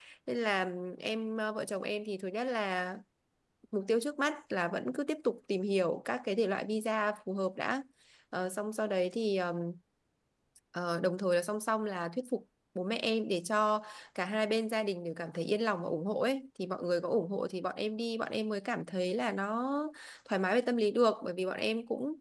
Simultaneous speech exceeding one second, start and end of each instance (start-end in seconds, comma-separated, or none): none